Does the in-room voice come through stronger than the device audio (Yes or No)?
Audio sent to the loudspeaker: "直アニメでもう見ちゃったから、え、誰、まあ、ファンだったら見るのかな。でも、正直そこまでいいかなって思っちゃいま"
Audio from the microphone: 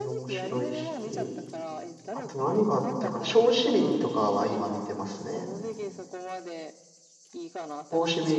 Yes